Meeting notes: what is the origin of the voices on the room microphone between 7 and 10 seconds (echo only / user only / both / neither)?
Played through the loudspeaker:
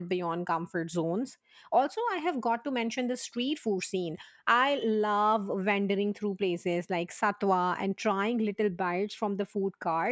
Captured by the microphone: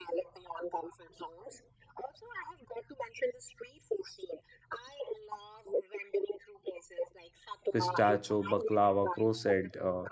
both